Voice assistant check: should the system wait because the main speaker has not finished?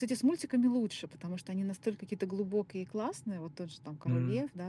Yes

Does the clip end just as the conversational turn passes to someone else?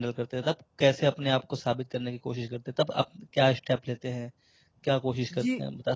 Yes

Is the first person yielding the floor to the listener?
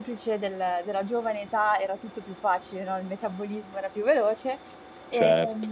No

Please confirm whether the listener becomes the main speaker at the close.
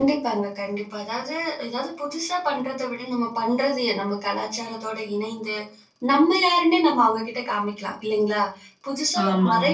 No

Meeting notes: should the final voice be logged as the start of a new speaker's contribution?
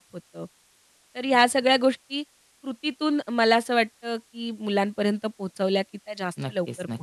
Yes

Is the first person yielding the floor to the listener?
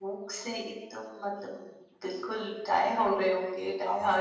Yes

